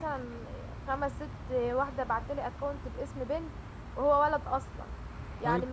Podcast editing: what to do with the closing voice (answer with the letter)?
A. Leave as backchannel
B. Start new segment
A